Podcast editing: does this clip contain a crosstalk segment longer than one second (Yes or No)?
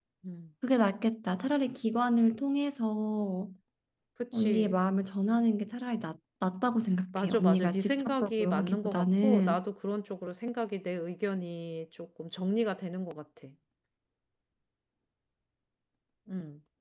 Yes